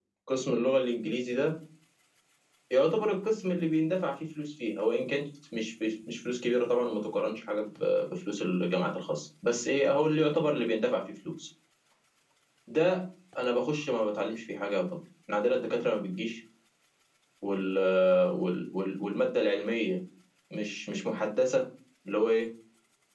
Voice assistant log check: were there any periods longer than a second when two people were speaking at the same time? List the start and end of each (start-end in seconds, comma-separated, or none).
none